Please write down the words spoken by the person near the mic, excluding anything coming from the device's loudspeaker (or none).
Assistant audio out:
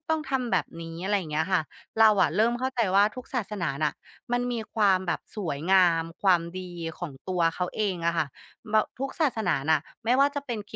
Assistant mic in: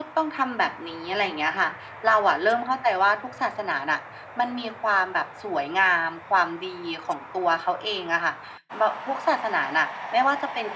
none